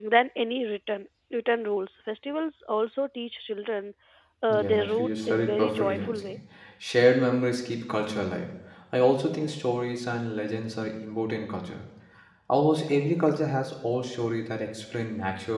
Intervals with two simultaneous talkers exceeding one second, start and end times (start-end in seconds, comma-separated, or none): 4.5-6.4